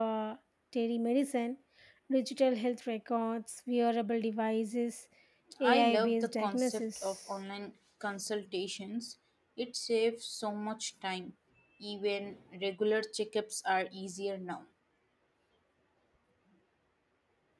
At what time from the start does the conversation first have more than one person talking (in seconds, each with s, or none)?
5.6 s